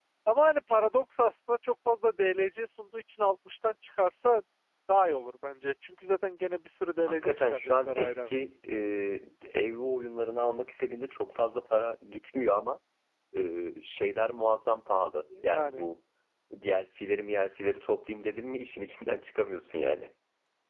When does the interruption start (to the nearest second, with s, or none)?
7 s